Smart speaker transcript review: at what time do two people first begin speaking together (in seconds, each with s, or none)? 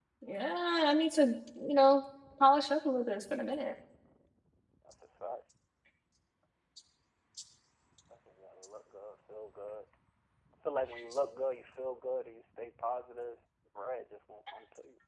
none